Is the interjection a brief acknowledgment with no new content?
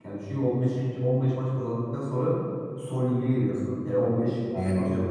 Yes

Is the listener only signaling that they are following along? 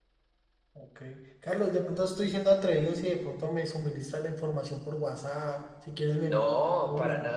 No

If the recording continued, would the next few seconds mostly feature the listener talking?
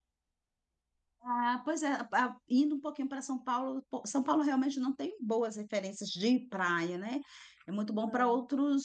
No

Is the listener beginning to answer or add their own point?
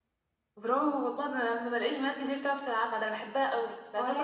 Yes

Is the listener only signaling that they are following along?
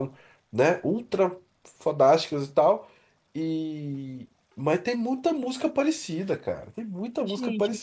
No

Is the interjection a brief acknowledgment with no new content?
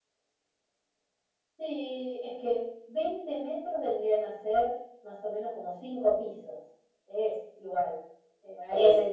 Yes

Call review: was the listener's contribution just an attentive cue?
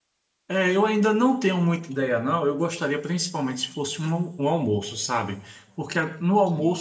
Yes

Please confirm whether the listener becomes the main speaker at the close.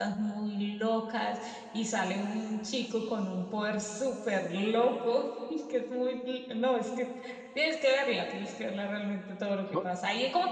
No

